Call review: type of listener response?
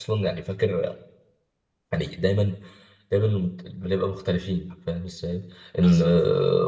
listening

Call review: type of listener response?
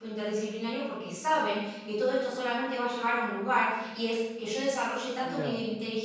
listening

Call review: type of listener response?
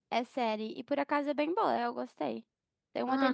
taking over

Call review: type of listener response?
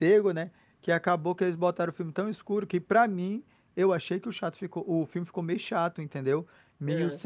listening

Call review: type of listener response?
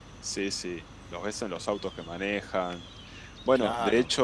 listening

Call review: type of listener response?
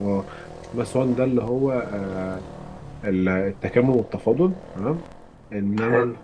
listening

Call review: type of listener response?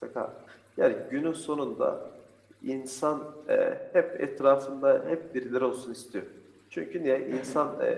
listening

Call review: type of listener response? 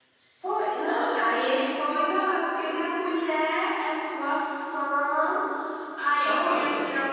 listening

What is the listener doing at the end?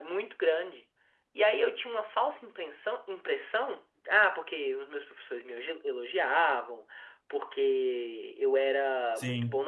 listening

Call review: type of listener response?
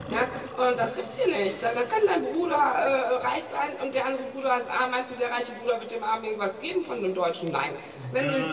listening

